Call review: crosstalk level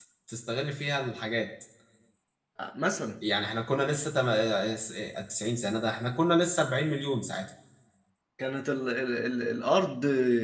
none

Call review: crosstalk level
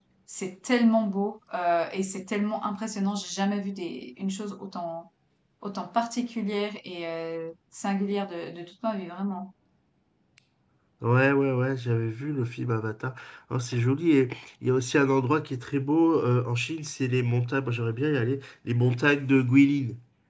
none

